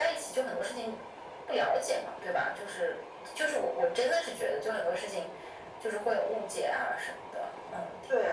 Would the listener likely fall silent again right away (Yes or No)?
No